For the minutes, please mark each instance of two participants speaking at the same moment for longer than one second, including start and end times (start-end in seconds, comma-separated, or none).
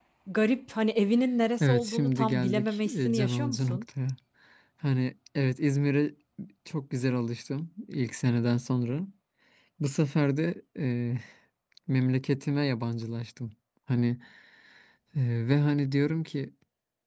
1.6-3.8